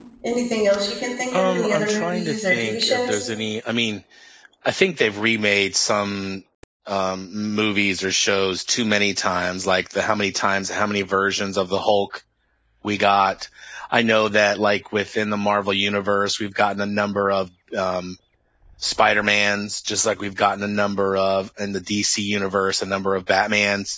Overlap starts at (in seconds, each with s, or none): 1.3 s